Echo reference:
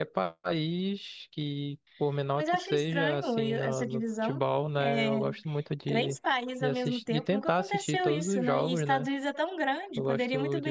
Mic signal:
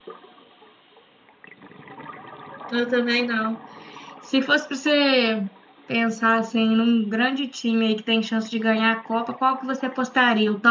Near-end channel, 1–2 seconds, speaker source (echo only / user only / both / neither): neither